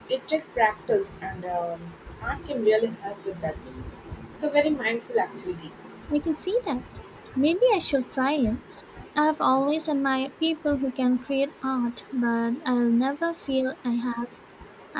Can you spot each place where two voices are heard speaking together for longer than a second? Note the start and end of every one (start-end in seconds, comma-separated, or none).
none